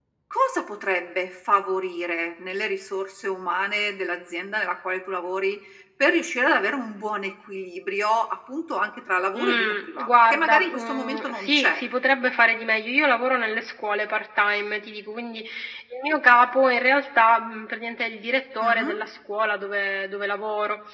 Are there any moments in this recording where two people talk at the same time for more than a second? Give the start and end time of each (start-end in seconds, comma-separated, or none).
9.3-11.8